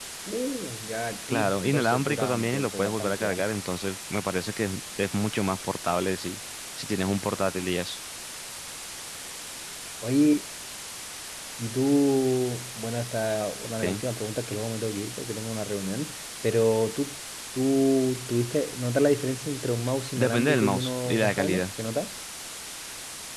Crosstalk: present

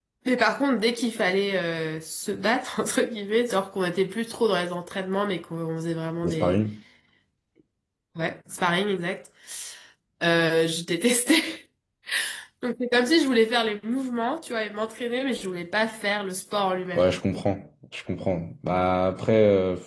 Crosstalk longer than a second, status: none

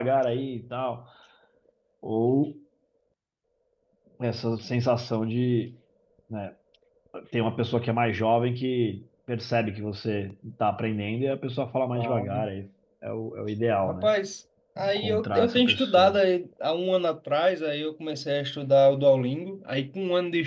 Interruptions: present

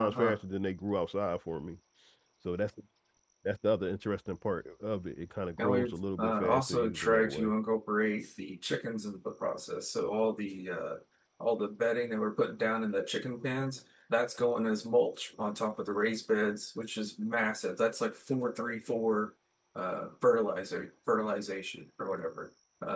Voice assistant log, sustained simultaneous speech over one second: present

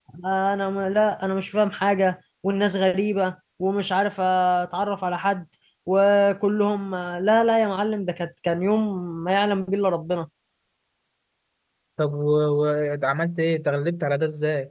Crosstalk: none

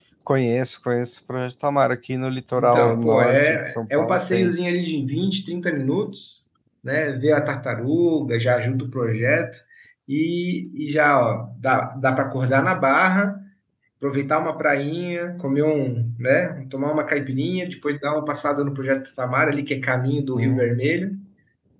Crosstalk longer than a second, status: present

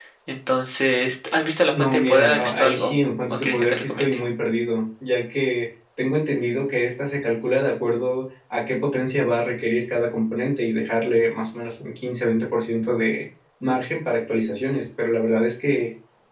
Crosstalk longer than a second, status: present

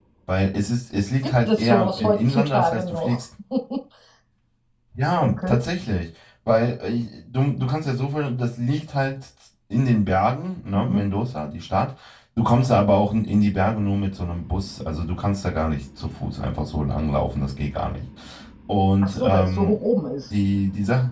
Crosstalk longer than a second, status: present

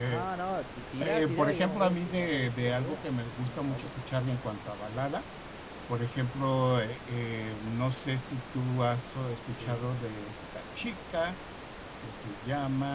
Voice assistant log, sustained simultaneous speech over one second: present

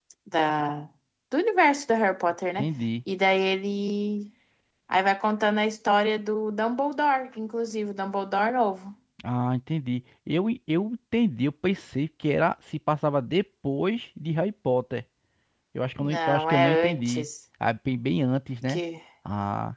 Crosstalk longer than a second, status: present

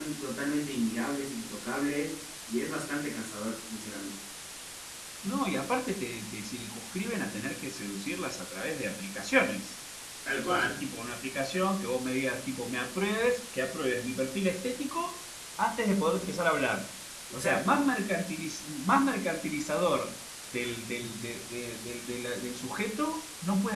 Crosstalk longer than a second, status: none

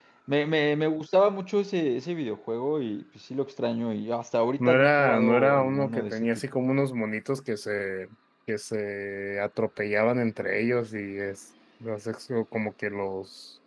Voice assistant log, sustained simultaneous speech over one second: present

